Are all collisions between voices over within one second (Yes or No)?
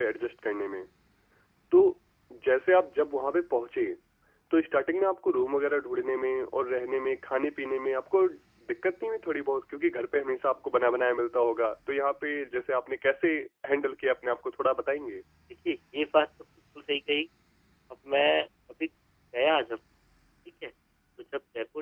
Yes